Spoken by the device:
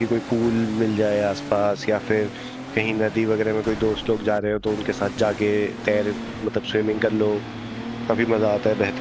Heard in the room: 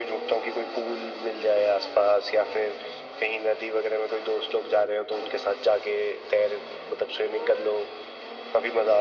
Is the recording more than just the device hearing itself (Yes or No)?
No